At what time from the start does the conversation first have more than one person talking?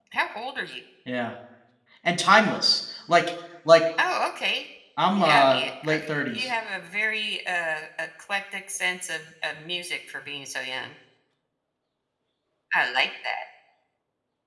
5.2 s

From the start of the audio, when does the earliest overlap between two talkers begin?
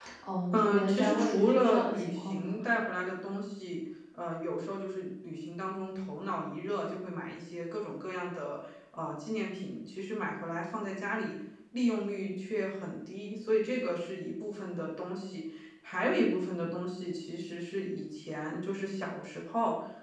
0.5 s

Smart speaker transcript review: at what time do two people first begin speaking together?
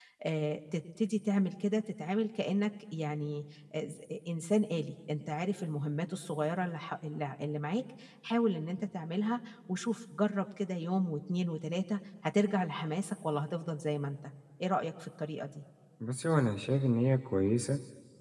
none

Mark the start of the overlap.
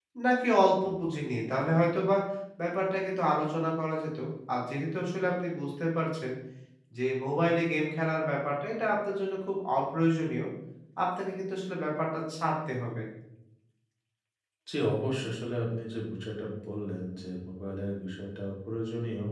none

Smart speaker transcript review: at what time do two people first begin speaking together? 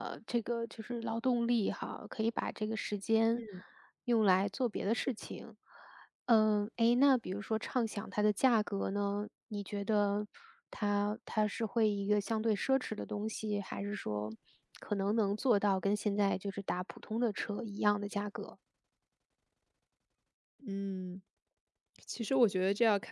none

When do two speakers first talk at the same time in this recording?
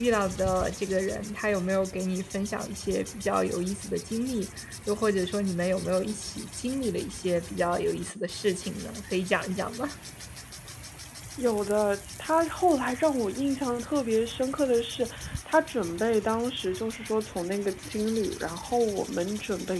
none

